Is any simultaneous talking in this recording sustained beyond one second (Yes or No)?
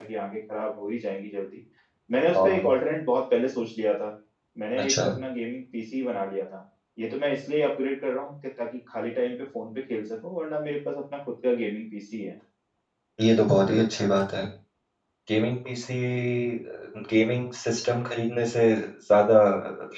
No